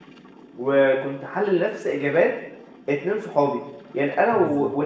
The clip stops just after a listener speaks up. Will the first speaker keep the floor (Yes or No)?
Yes